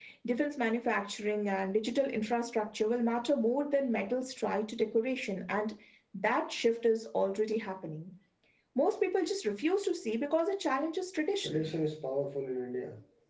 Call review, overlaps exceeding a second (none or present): none